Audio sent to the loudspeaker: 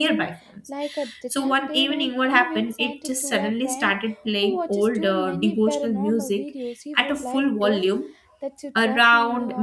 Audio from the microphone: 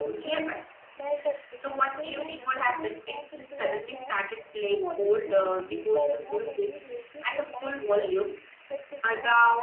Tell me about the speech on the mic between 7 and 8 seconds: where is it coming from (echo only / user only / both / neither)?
echo only